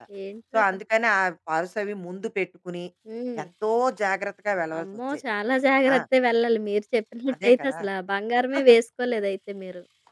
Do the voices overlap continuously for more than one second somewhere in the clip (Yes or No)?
No